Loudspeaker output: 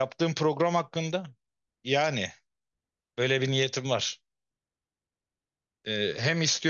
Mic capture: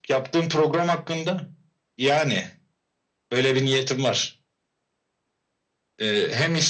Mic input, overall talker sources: echo only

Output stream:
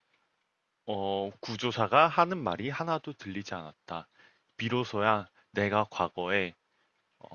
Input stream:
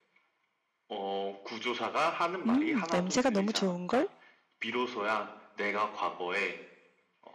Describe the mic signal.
both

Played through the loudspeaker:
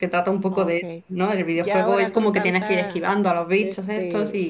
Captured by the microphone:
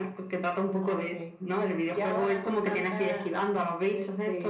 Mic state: echo only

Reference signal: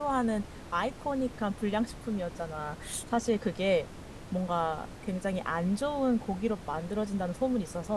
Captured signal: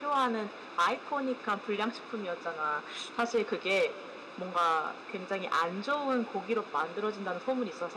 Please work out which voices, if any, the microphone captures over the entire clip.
echo only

